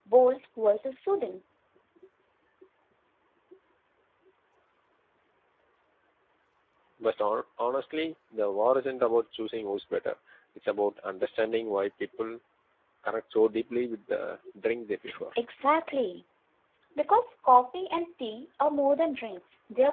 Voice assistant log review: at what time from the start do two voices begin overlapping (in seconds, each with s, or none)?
none